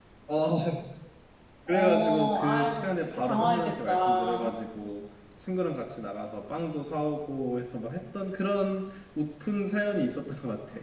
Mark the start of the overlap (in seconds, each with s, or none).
1.7 s